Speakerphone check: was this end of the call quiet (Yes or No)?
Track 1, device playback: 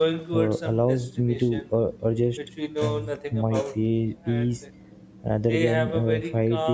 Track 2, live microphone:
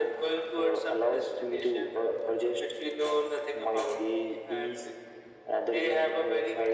Yes